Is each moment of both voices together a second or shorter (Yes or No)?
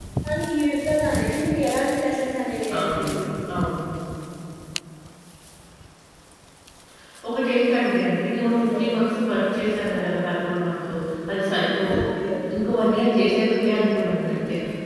Yes